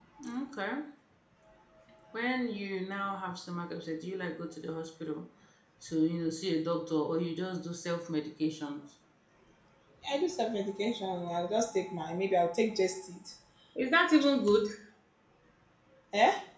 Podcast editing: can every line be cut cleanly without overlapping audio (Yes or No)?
Yes